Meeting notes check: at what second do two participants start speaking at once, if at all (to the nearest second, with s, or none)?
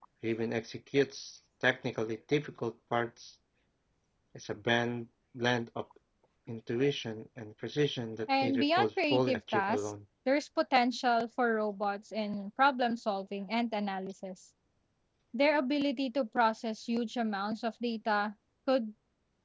8 s